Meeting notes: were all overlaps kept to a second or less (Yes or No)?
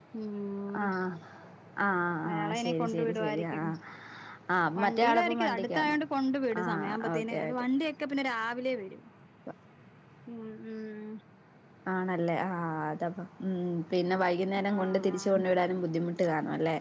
No